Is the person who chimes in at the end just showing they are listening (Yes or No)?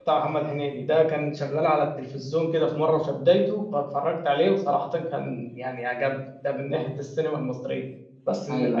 Yes